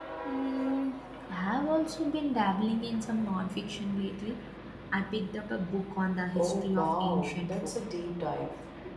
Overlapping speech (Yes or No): Yes